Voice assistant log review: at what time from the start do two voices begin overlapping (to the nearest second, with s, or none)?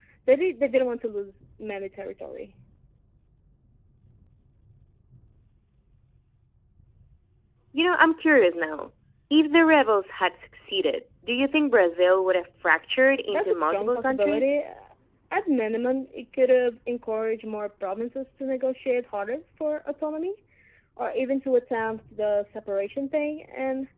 13 s